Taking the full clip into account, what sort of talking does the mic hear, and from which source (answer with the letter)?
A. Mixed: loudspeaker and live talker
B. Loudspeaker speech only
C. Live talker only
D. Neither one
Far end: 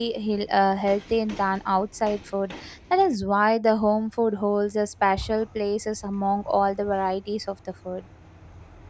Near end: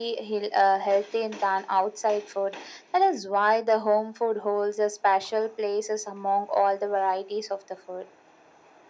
B